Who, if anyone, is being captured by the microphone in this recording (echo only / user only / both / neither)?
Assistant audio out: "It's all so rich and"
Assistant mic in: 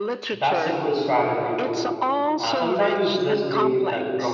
both